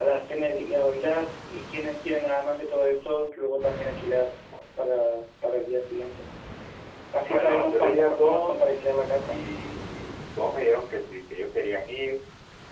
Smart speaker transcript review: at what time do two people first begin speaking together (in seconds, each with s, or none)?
7.2 s